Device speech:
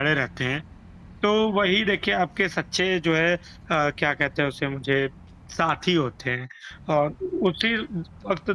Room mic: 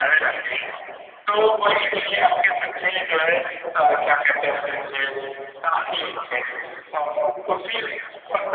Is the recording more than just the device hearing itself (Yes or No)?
No